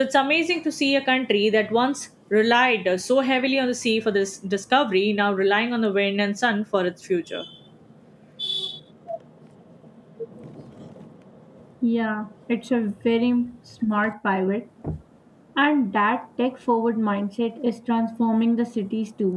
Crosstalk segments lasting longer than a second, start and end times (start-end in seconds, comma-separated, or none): none